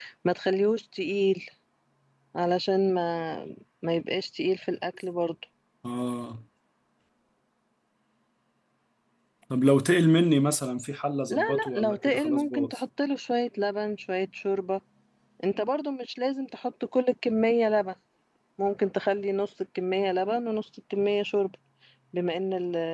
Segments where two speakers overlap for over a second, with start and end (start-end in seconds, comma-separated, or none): 11.3-12.8